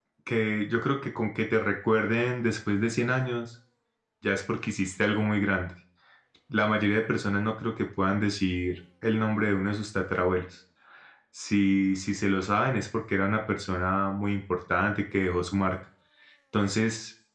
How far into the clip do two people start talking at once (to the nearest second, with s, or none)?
none